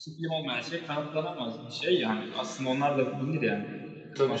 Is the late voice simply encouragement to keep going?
No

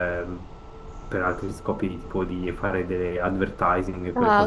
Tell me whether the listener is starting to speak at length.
Yes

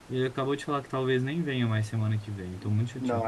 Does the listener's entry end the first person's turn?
Yes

